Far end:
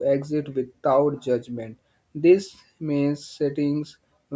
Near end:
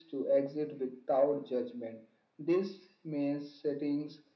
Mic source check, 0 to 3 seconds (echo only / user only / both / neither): echo only